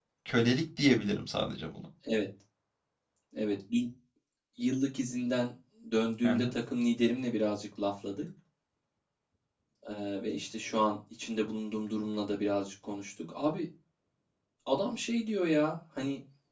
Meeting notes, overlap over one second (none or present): none